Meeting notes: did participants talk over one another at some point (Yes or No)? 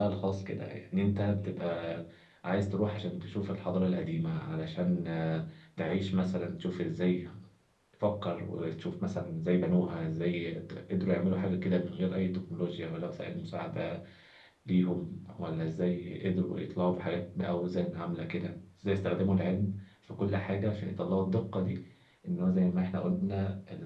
No